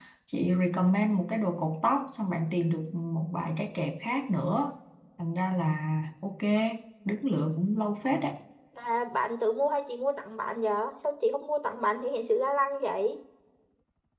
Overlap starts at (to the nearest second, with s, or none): none